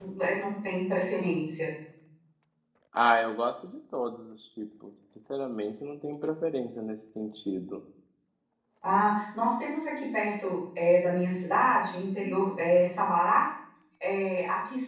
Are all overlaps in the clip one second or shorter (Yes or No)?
Yes